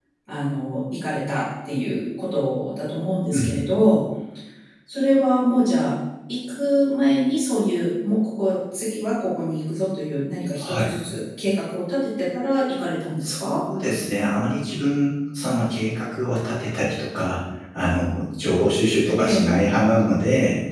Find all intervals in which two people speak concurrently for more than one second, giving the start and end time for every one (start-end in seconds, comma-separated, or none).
none